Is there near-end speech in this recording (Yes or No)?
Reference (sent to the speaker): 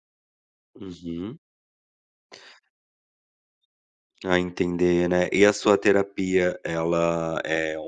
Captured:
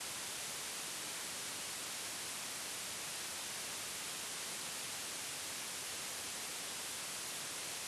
No